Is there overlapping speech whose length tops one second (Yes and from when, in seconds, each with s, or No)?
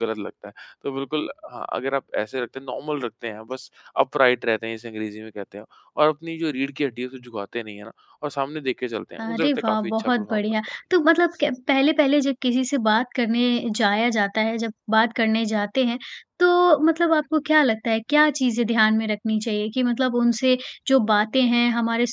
Yes, from 9.2 s